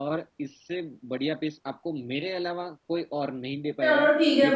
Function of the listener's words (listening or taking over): taking over